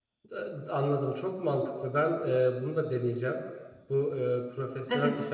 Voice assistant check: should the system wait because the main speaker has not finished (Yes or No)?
Yes